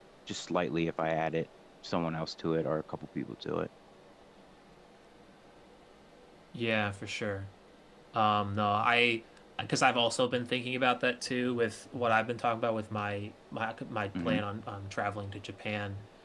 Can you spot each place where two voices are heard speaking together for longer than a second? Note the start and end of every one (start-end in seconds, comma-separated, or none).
none